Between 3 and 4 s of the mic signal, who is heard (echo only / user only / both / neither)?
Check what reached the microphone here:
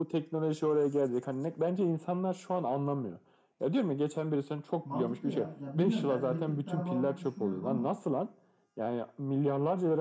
echo only